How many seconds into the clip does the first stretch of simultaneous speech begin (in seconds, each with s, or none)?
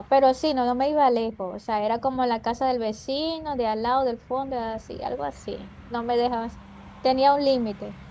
none